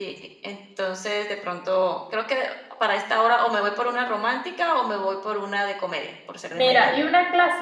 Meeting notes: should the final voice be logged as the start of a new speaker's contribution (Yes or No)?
Yes